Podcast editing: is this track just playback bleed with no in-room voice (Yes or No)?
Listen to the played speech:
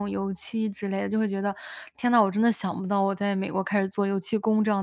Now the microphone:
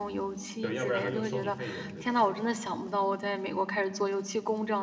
No